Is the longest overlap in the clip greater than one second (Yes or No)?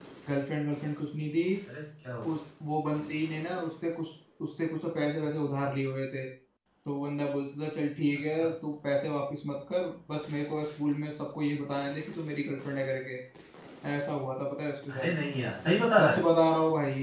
No